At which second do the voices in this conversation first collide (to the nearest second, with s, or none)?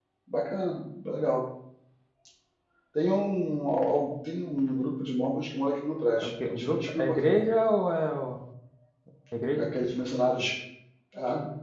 6 s